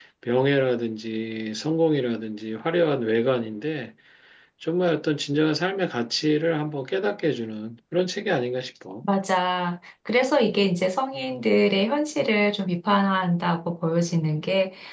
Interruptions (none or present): none